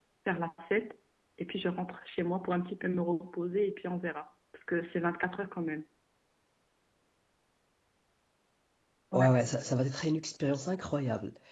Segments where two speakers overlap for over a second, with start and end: none

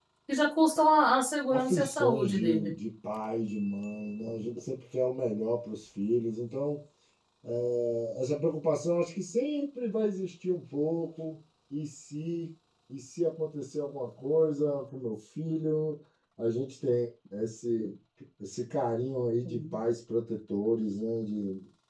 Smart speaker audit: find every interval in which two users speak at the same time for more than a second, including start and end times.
1.5-2.7

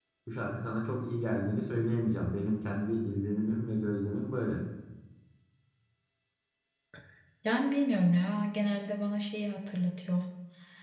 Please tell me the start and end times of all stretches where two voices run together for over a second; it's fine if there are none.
none

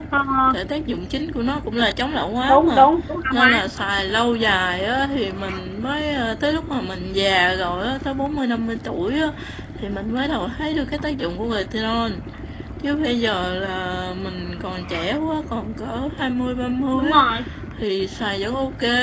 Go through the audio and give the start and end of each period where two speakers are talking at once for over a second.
none

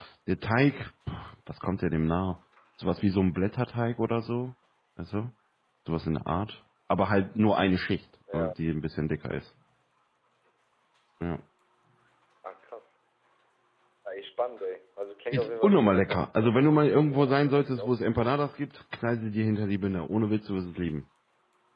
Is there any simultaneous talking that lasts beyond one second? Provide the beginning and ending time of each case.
15.3-17.9

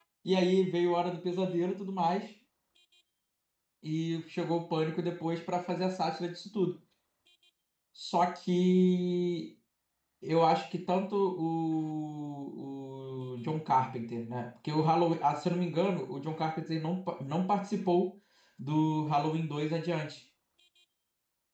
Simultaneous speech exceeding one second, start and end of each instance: none

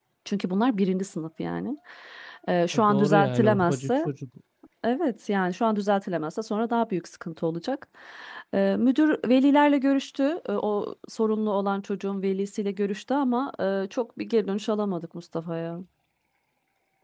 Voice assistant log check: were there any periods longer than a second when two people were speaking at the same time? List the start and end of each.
2.7-4.1

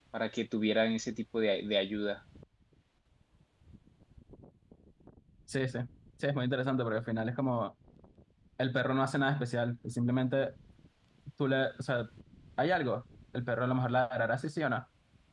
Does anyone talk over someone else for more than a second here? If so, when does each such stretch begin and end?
none

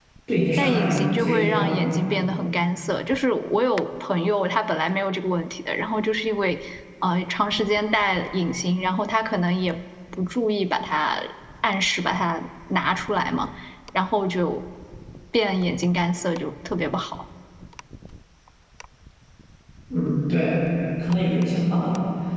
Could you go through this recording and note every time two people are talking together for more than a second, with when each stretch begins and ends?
0.6-1.8

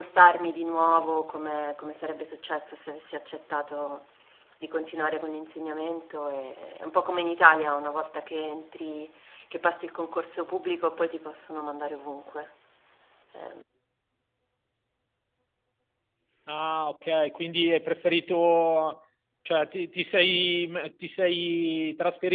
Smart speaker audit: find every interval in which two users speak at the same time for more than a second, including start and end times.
none

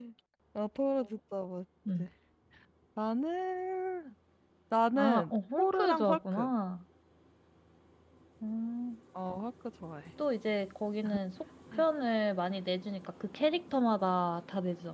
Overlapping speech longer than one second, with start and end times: 4.9-6.5

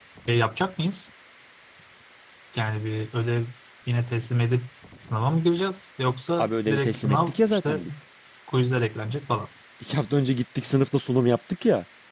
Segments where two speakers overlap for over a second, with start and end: 6.4-7.8

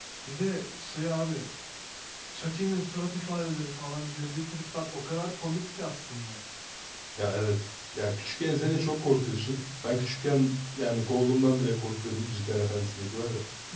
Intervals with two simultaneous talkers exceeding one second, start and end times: none

